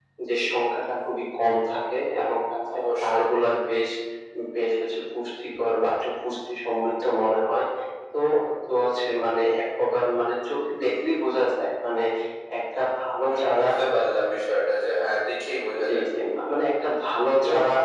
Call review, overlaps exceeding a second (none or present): none